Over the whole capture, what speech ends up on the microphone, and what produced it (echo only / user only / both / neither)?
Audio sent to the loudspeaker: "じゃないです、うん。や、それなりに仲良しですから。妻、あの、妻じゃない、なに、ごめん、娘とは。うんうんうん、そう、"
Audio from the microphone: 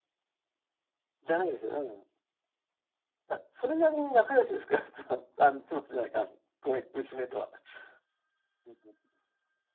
echo only